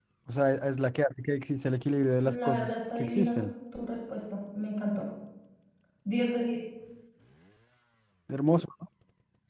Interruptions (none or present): present